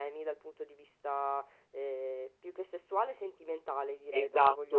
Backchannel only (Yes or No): No